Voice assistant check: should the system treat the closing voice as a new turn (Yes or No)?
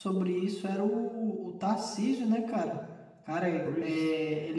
No